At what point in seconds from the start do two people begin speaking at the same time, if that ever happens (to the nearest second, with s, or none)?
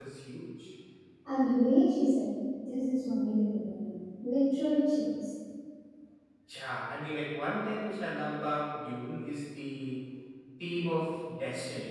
none